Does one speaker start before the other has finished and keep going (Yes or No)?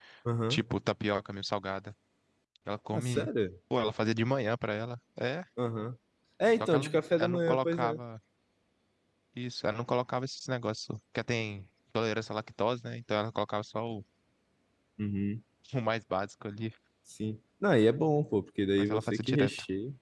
Yes